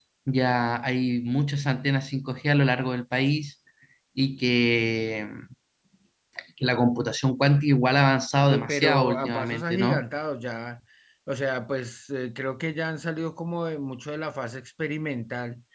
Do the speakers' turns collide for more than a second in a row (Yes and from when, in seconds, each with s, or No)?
Yes, from 8.4 s